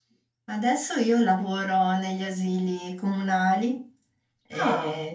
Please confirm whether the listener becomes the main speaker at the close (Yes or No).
No